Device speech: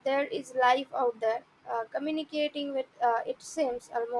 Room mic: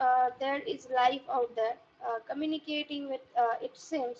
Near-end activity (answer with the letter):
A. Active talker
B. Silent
B